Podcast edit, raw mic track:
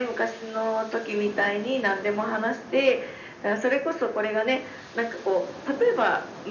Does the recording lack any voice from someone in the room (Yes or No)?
Yes